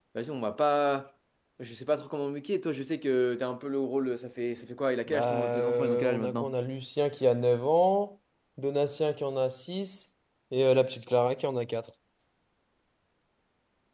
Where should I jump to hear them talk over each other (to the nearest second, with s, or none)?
5 s